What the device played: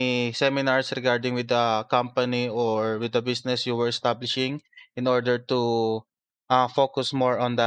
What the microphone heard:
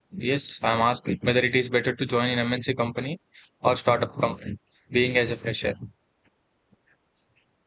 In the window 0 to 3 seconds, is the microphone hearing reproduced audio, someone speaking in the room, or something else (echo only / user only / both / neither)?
user only